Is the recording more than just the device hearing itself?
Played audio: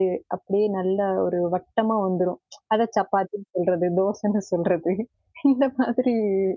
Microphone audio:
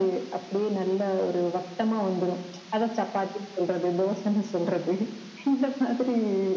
No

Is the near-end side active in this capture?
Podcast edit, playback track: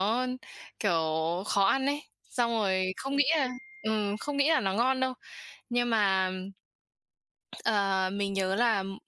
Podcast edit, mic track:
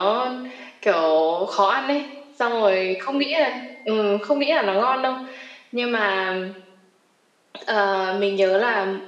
No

